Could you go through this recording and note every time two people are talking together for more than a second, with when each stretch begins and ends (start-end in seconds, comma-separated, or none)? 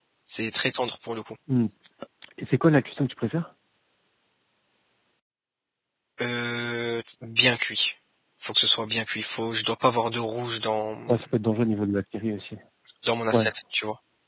none